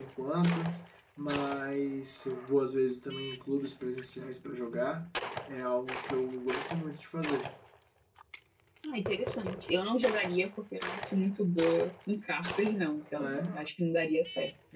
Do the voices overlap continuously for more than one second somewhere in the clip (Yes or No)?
No